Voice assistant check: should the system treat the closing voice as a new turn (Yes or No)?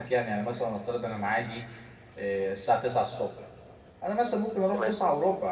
No